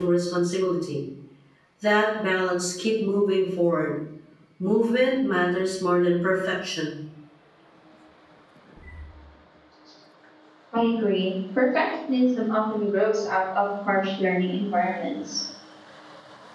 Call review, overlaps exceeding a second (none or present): none